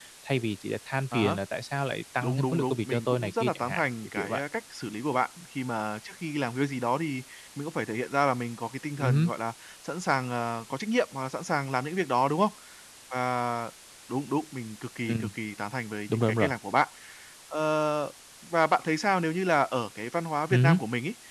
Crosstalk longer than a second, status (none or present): present